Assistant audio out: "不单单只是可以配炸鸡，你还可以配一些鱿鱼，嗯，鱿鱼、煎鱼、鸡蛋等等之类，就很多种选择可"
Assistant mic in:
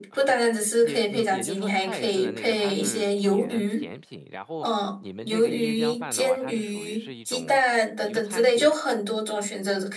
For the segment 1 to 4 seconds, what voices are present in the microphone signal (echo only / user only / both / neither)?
both